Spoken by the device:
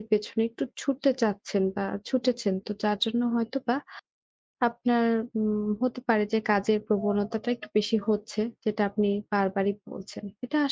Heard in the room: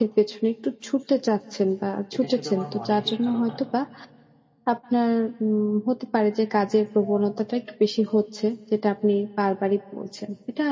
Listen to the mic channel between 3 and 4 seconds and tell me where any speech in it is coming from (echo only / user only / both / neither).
both